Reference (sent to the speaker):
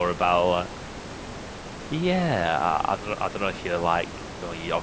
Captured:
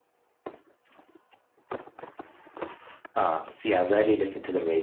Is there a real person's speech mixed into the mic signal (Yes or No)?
Yes